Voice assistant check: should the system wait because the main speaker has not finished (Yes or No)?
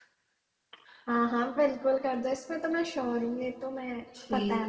No